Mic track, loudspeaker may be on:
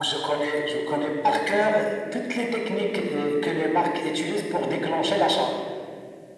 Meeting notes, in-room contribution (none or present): none